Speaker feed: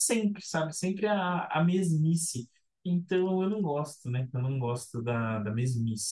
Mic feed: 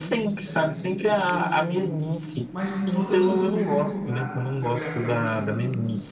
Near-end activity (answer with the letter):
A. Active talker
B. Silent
A